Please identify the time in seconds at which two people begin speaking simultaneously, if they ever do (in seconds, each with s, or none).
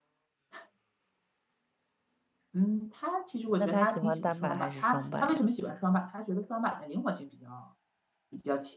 3.6 s